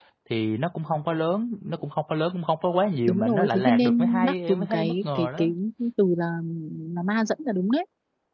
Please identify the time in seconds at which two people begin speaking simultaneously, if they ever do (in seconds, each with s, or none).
3.1 s